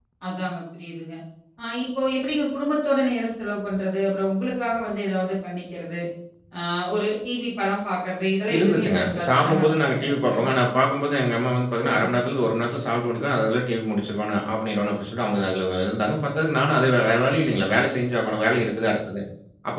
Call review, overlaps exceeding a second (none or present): present